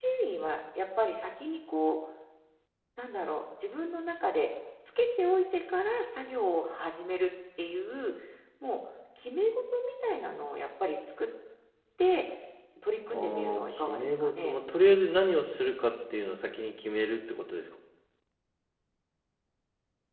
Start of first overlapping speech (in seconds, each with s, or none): 13.1 s